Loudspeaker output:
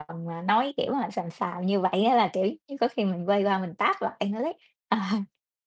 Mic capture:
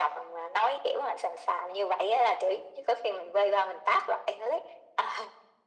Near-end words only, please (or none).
none